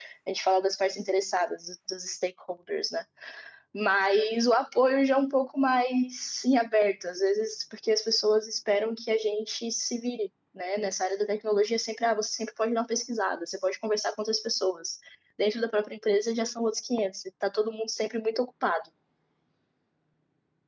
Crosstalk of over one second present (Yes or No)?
No